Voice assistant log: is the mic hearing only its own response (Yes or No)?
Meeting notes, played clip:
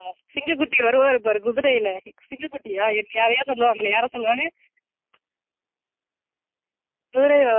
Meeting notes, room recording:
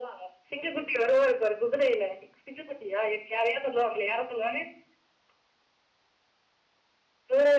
Yes